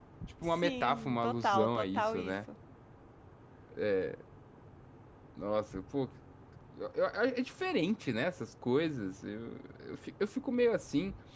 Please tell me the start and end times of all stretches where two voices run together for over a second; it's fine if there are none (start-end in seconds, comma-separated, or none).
0.6-2.3